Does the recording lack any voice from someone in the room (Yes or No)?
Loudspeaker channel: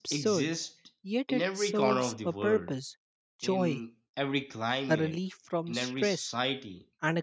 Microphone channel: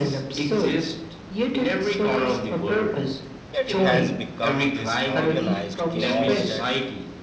No